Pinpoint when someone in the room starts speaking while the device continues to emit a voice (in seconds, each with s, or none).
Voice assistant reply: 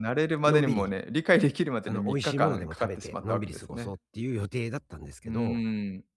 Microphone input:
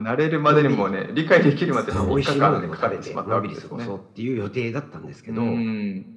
1.7 s